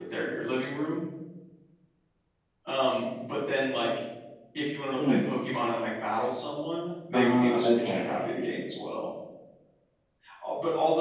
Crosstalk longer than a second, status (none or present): present